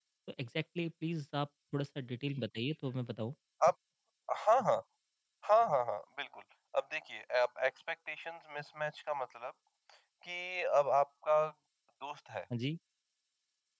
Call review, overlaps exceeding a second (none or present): none